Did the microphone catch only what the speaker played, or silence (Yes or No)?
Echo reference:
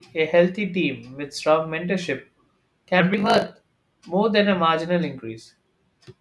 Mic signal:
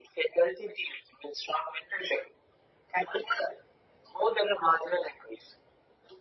Yes